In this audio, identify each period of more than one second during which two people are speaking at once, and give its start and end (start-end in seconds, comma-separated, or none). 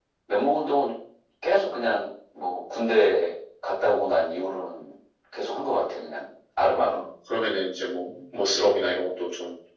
none